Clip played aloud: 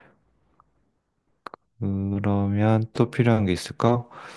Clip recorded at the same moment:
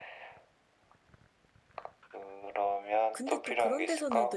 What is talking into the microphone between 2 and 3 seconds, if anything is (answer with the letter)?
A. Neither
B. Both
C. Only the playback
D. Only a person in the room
C